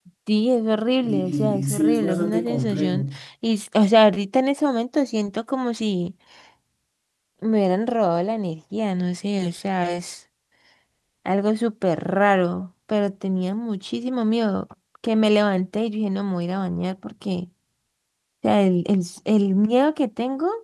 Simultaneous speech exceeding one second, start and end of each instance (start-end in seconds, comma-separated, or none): 1.0-3.0